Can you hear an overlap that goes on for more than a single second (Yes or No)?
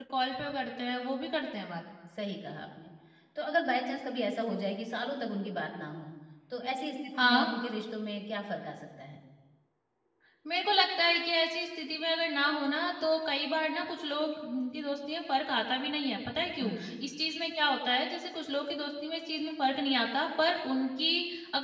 No